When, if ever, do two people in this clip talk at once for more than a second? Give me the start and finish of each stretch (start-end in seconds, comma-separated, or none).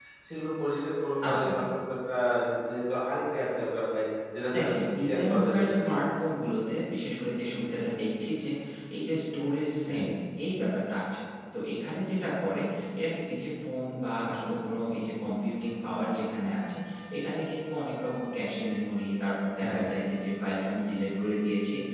4.6-6.0